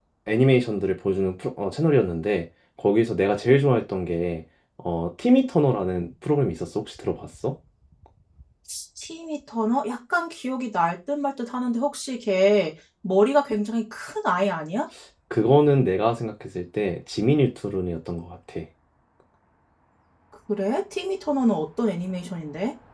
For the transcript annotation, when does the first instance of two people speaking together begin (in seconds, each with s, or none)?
none